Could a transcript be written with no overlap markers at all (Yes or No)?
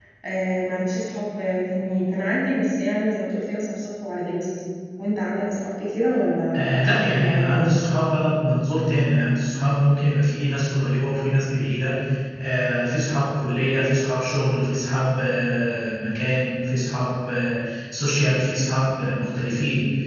No